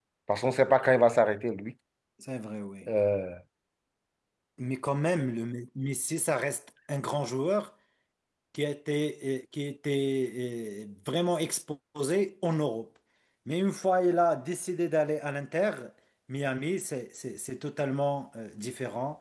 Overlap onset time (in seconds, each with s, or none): none